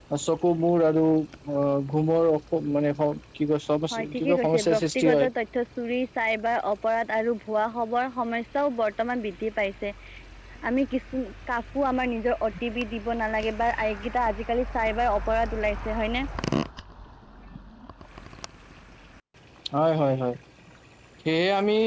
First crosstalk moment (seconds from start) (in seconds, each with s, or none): 3.9 s